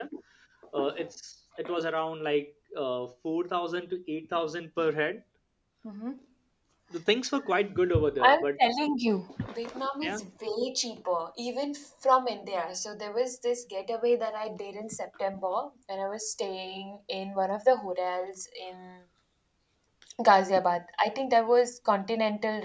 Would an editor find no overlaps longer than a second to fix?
Yes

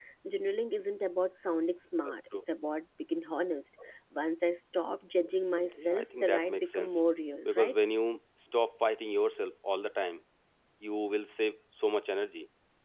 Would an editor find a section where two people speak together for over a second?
Yes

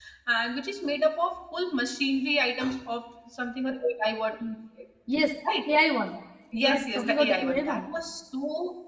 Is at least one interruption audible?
Yes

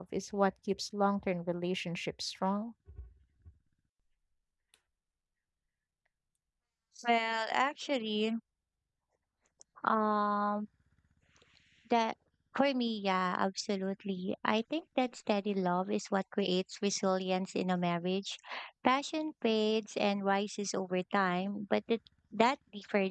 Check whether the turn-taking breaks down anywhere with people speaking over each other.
No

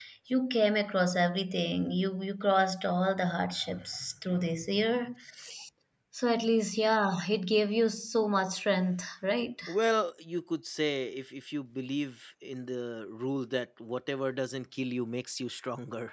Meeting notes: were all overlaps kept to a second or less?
Yes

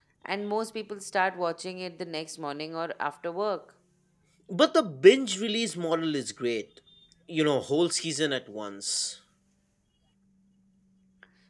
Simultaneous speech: No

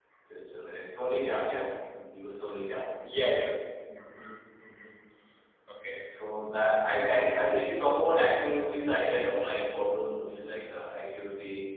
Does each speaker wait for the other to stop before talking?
Yes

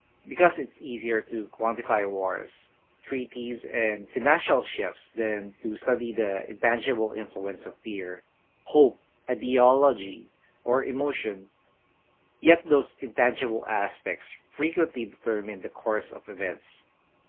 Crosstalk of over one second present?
No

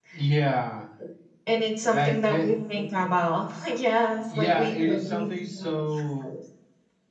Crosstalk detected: Yes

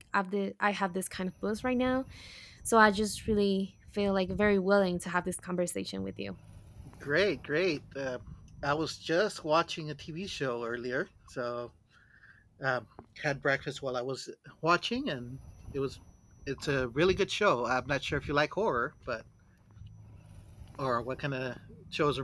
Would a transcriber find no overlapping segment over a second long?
Yes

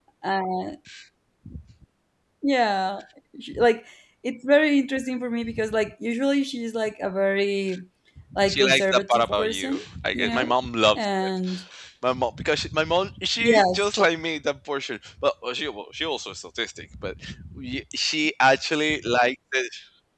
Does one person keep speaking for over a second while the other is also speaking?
Yes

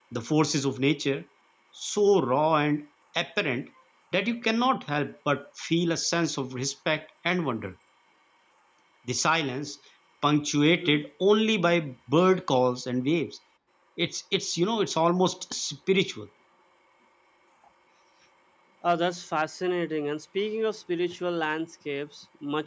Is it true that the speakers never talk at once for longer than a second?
Yes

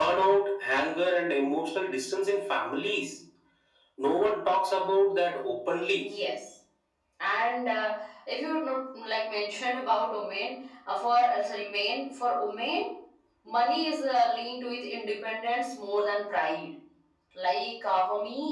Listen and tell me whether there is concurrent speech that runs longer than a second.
No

